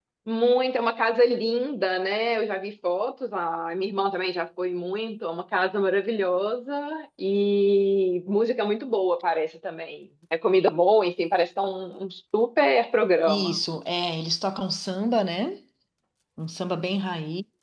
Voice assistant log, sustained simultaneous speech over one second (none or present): none